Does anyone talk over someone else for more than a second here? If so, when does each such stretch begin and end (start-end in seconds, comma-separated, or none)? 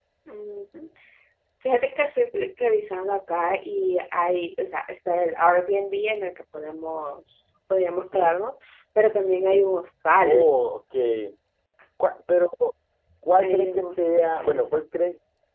13.4-14.7